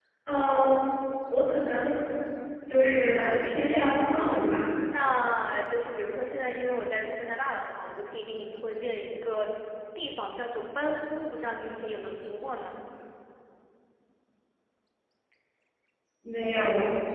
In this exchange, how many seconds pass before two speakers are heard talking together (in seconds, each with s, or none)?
2.8 s